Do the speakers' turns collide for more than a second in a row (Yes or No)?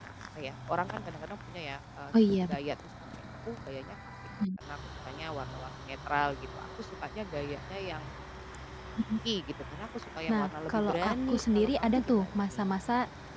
Yes